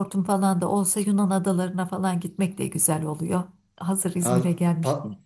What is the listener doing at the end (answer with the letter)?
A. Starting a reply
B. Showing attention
A